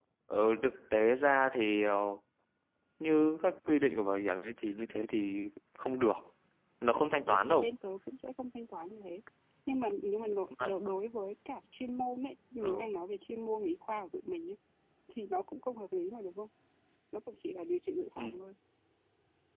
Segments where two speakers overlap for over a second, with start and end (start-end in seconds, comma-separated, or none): none